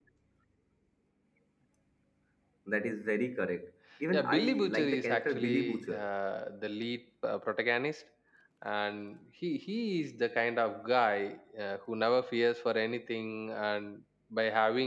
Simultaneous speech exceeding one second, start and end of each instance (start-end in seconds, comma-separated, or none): 4.1-6.0